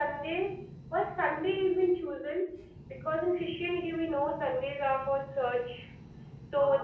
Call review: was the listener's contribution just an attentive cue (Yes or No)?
Yes